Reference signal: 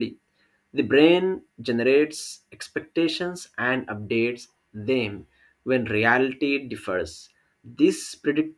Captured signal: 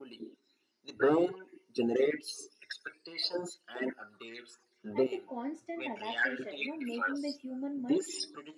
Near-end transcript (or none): and the constant adaptation you know making the human mind